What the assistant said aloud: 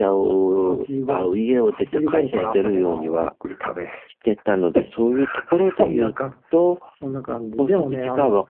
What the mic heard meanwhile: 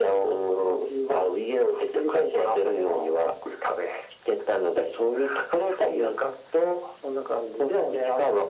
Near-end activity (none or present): none